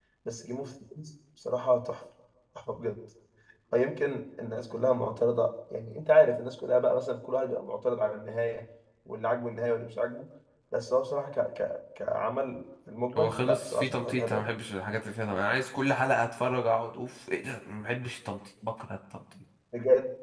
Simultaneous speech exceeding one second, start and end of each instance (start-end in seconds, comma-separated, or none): 13.2-14.5